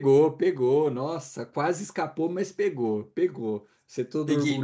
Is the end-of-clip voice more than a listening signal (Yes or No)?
Yes